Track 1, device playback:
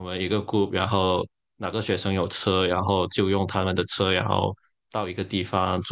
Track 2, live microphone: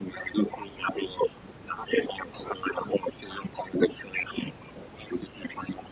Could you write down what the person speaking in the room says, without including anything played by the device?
none

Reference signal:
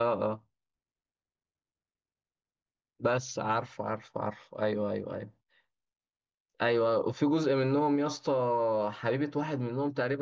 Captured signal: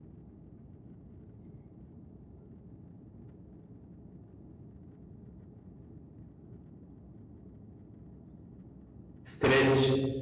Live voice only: سترينج

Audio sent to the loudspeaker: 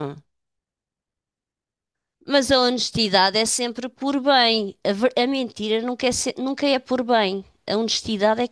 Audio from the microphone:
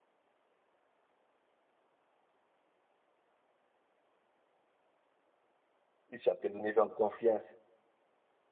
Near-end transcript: Isso já depende do nível de confiança.

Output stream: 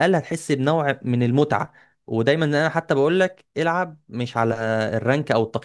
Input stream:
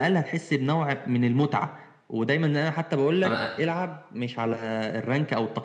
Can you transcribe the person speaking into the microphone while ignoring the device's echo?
انا

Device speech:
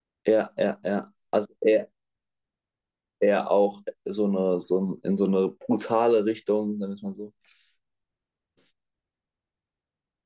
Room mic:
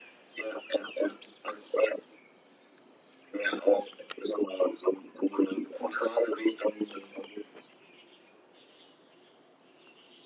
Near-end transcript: none

